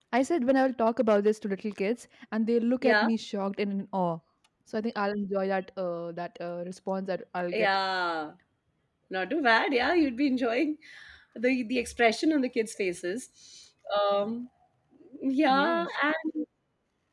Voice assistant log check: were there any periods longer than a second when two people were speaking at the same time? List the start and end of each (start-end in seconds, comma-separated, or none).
none